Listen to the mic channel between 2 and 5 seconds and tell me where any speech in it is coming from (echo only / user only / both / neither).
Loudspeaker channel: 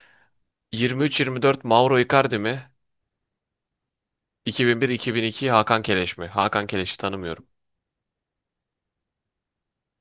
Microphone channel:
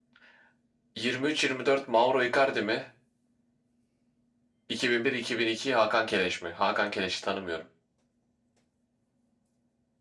echo only